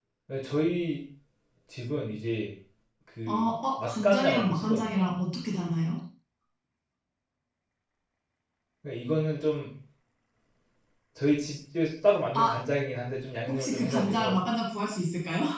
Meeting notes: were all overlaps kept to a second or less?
No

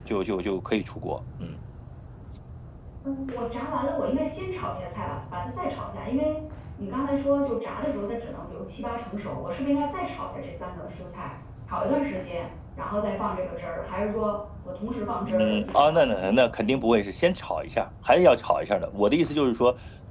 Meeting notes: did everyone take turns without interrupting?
No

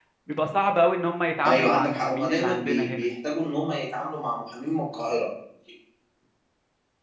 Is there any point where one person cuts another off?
Yes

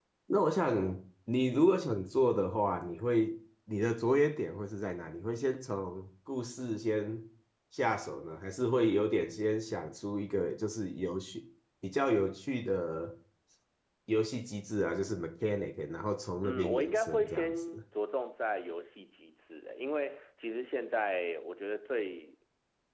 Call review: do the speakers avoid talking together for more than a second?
No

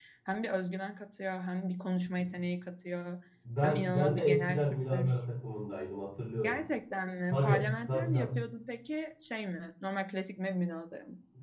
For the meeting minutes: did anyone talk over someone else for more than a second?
Yes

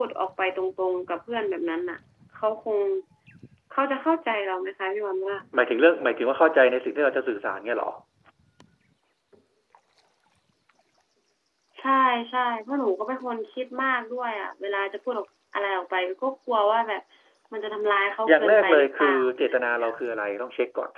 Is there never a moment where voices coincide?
No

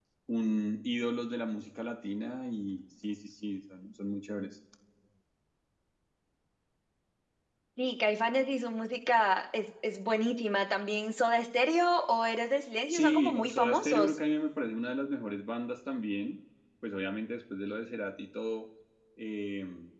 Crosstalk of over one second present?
Yes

